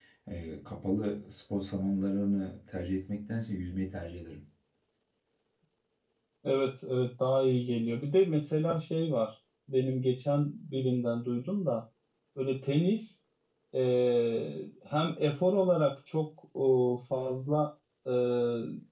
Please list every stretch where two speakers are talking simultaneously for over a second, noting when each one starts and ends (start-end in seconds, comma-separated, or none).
none